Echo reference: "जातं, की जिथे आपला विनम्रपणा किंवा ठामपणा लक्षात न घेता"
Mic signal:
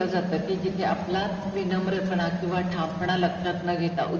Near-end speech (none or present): none